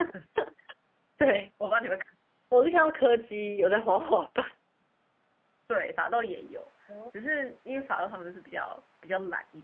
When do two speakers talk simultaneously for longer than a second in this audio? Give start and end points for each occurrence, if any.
none

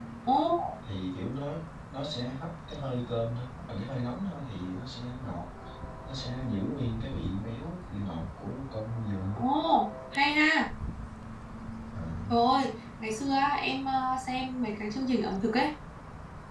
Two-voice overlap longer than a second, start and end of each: none

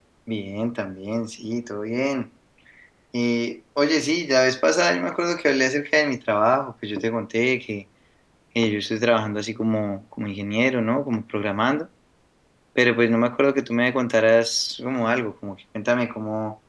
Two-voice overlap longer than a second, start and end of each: none

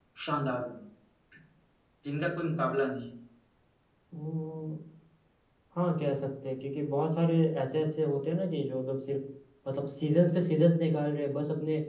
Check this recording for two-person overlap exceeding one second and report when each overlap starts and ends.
none

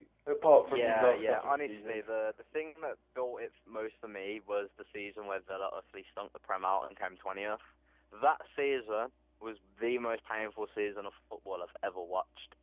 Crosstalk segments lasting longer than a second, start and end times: 0.6-2.1

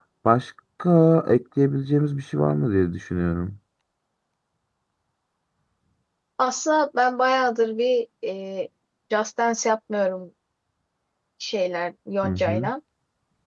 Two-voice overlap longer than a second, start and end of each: none

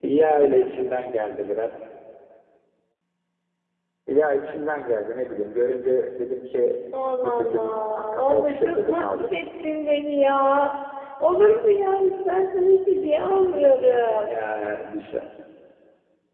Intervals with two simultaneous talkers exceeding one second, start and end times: 7.2-9.4

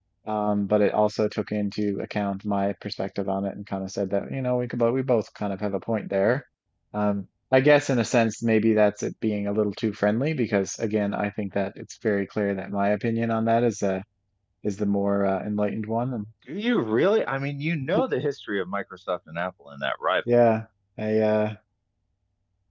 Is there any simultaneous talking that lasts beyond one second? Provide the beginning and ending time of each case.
none

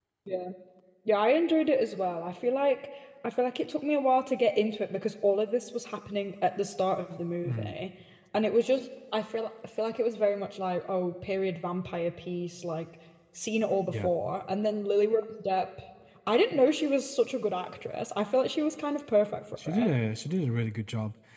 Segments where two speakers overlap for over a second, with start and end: none

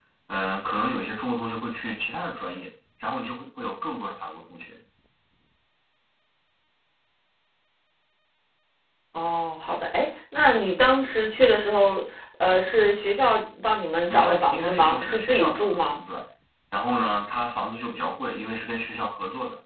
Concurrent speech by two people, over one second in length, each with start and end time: 14.1-16.0

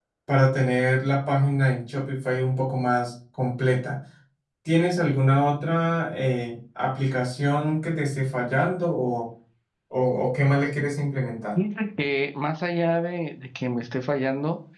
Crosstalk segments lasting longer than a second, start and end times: none

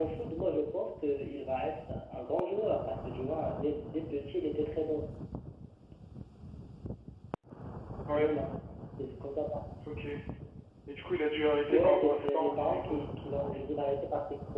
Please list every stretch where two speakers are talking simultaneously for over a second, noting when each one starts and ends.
11.7-13.0

